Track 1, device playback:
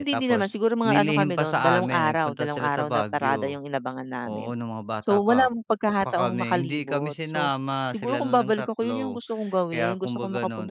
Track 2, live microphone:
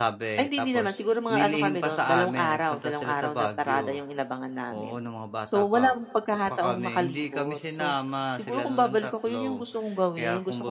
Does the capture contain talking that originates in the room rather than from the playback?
No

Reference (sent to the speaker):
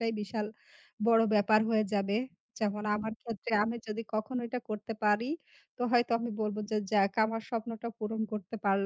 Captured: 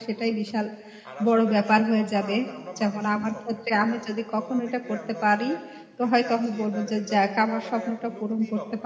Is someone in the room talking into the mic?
Yes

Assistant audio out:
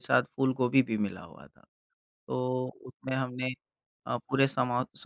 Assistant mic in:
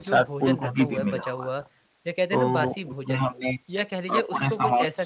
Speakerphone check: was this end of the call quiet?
No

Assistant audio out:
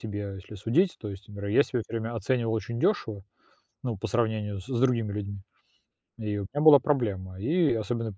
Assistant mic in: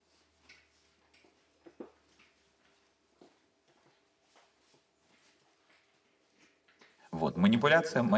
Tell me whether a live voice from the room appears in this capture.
Yes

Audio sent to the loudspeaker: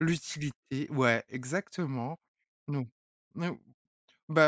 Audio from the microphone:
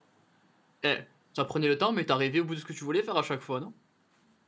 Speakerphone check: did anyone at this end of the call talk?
Yes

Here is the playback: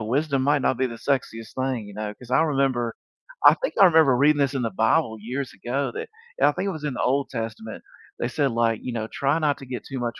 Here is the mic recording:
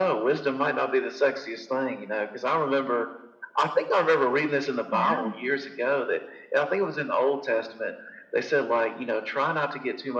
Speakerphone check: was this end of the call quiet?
No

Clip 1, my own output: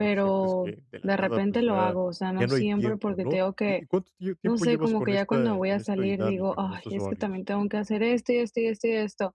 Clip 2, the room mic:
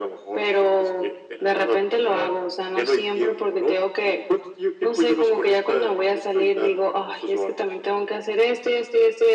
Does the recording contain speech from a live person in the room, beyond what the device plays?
No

